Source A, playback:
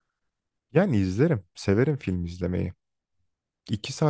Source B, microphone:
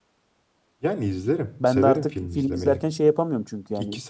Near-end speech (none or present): present